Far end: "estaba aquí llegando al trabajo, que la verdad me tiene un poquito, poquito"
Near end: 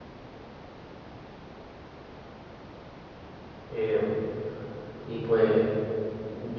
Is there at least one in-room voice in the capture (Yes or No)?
Yes